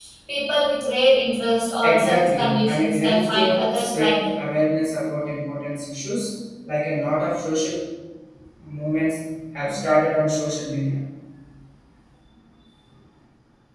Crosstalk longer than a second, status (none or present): present